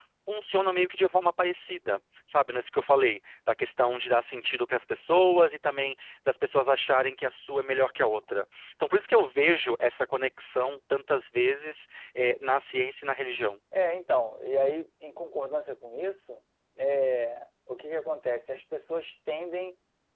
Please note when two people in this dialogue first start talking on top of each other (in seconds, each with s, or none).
none